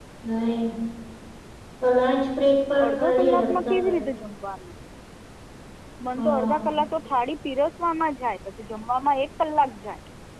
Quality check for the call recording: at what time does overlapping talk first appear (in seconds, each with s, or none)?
2.8 s